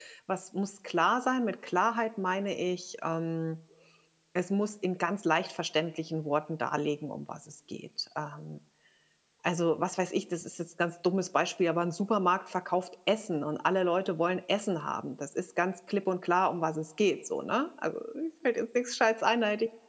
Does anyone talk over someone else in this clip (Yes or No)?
No